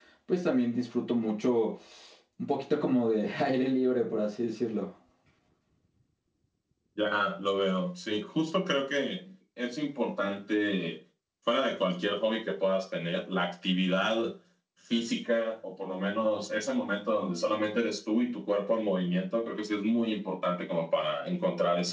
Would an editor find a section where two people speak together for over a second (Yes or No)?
No